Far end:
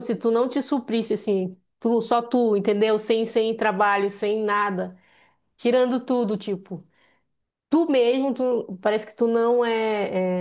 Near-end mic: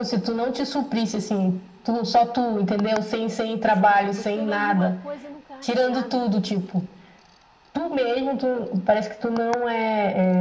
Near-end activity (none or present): present